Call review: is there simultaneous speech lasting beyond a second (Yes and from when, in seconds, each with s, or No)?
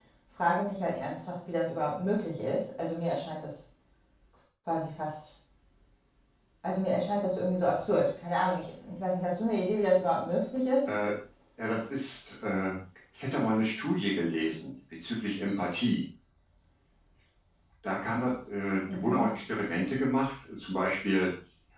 No